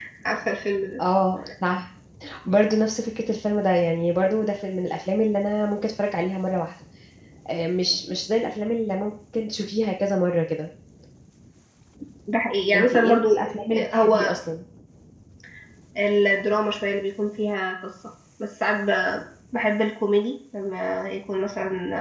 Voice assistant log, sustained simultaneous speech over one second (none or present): present